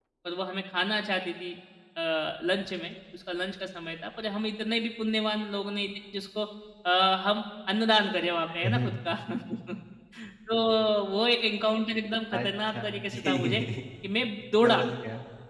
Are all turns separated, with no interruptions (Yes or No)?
No